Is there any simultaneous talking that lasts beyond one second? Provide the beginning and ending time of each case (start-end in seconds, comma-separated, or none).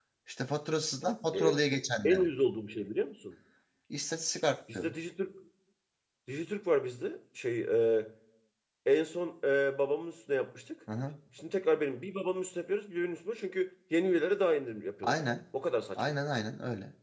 none